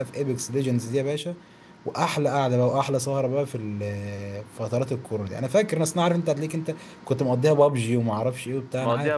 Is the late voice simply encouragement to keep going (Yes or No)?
No